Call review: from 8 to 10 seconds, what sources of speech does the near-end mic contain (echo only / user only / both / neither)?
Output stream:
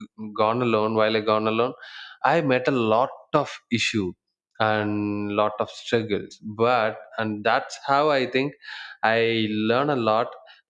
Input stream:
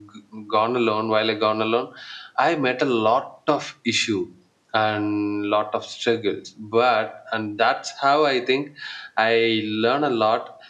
echo only